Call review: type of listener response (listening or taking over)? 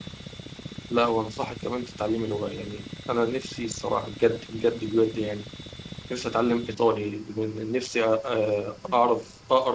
listening